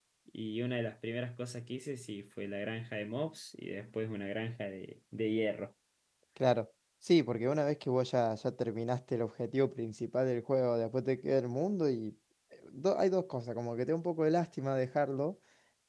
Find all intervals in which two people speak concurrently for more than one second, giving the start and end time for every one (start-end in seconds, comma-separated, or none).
none